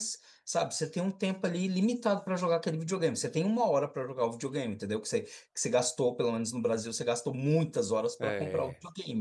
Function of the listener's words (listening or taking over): listening